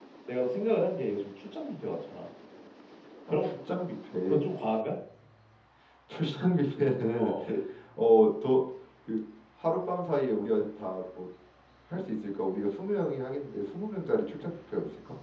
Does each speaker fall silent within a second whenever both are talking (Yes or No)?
Yes